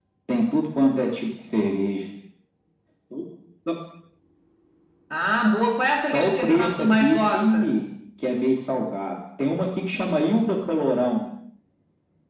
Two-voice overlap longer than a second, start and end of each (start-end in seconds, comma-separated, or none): 6.1-7.8